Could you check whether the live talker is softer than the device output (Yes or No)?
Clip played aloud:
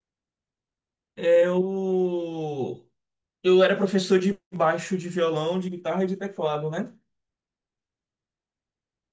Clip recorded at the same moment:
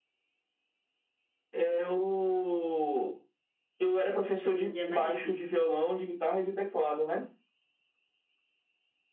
Yes